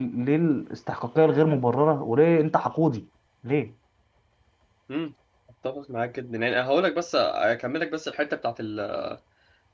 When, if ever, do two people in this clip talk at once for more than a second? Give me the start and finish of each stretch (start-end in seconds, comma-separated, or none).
none